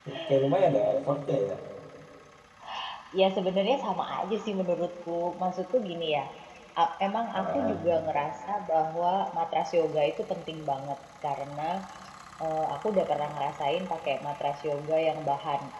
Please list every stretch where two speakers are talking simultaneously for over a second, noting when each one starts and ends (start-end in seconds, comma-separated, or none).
none